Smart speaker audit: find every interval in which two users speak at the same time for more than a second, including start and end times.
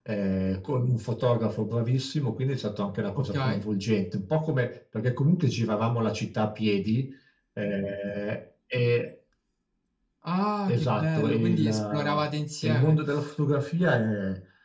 10.7-12.2

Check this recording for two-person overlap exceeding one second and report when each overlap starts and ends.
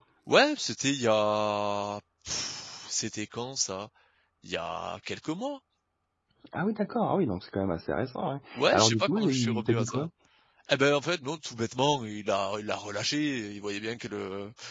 8.6-10.1

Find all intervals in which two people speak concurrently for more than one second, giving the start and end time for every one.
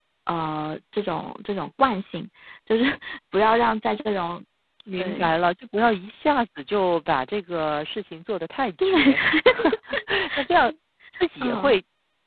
none

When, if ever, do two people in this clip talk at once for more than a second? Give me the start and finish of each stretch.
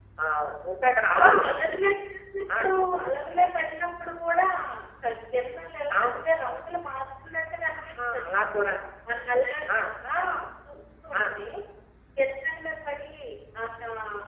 none

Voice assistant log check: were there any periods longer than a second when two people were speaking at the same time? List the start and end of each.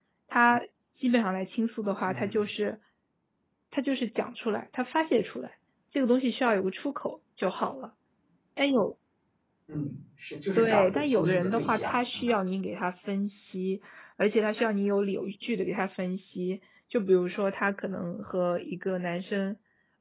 10.6-12.3

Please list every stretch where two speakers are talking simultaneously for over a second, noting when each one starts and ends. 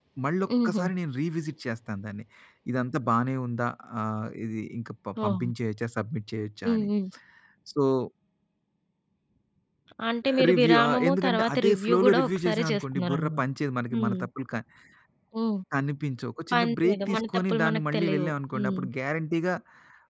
10.3-13.4, 16.5-18.8

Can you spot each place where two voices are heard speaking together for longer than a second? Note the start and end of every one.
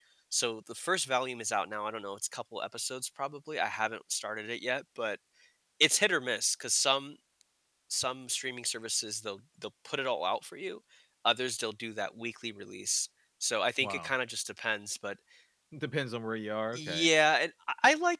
none

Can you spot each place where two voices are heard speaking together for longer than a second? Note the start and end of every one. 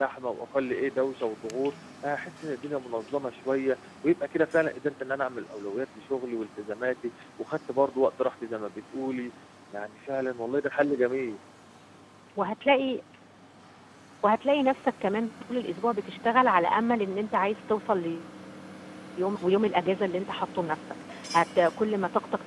none

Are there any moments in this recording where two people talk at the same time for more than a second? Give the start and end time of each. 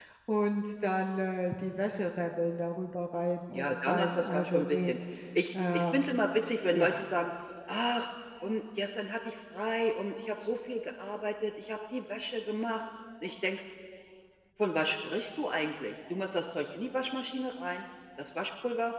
3.5-4.9

